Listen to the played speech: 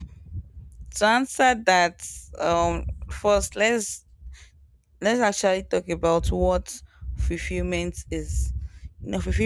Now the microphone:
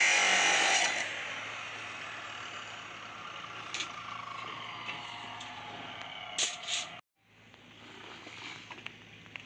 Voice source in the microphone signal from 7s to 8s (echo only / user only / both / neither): neither